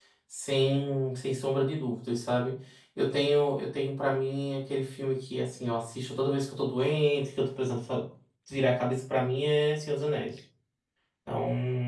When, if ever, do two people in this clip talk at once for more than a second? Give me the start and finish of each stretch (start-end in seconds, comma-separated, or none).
none